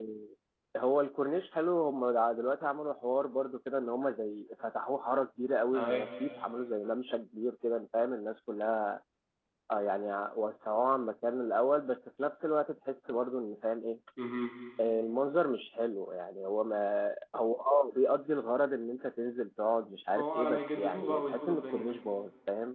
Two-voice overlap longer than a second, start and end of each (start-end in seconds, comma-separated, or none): 20.1-22.0